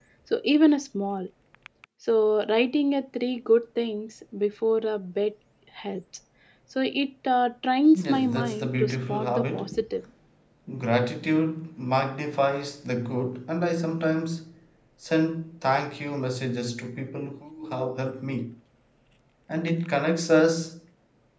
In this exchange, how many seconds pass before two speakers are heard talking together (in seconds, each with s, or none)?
8.0 s